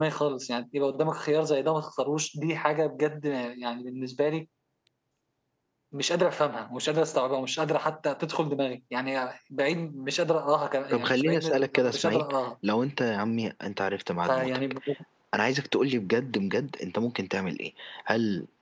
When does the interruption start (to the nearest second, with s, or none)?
11 s